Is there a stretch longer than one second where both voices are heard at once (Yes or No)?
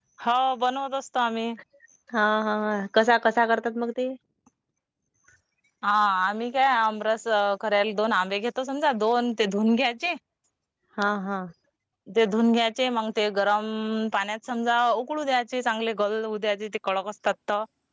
No